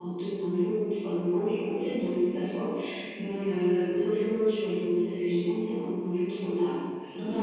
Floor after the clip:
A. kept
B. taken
B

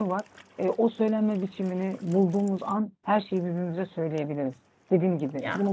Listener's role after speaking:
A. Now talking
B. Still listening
B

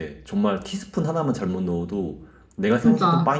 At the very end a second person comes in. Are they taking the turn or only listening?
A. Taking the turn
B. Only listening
B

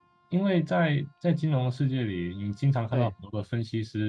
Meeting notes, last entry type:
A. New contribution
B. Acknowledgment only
B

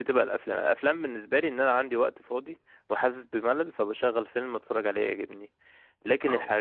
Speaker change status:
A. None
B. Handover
A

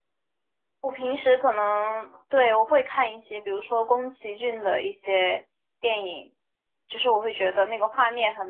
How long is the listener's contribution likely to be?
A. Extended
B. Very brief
B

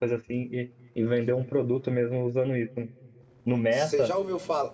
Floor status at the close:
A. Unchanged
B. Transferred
B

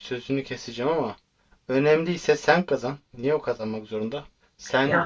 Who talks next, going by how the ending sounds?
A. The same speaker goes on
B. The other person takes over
A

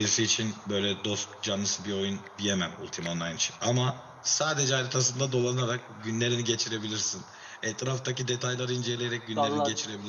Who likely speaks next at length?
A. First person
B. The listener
B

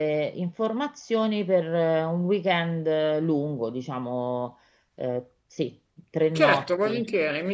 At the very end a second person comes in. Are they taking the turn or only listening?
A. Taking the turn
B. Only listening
A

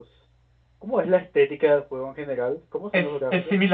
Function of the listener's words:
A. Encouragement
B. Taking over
B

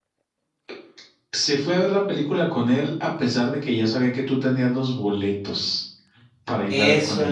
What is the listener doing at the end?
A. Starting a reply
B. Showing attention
A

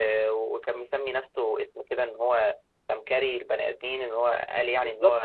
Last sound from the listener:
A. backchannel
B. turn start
B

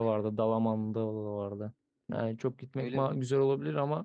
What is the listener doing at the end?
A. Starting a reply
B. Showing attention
B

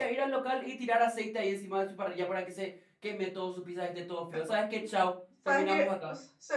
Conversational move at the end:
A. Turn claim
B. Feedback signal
A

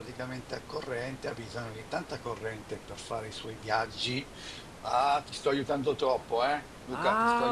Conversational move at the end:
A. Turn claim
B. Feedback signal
A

